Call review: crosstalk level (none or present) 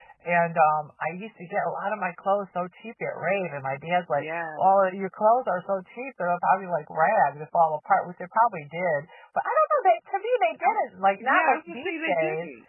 present